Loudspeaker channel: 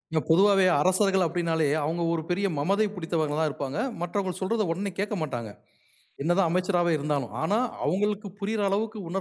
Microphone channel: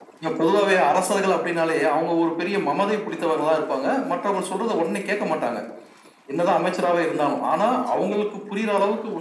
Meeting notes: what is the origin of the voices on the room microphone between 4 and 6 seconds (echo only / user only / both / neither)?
echo only